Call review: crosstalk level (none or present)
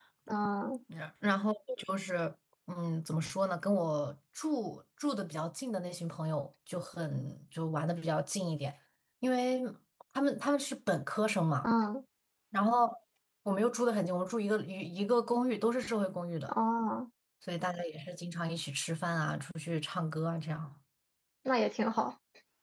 none